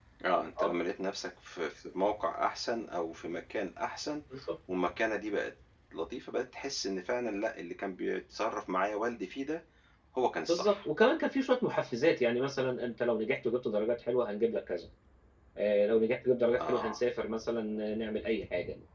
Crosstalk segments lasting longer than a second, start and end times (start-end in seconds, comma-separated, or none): none